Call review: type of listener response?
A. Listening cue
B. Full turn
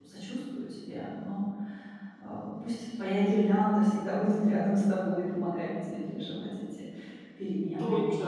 B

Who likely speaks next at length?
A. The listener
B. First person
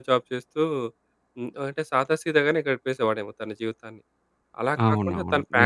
B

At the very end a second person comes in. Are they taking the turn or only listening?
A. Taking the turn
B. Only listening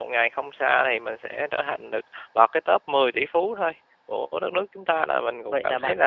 A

